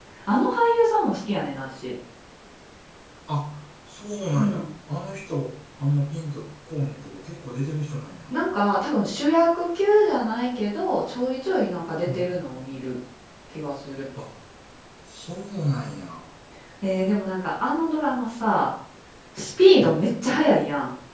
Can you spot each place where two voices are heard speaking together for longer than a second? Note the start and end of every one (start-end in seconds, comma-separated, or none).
none